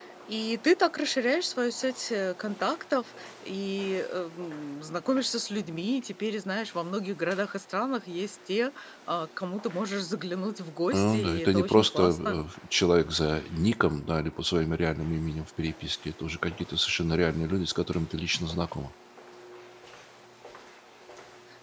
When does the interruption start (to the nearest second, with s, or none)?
11 s